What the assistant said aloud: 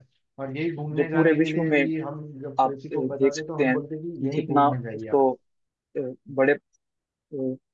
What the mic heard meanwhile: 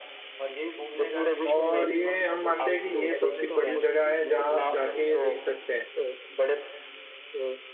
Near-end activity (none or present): present